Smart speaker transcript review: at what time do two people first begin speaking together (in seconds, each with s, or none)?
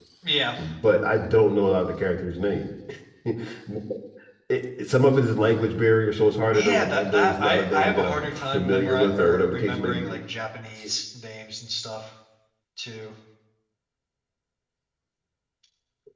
6.5 s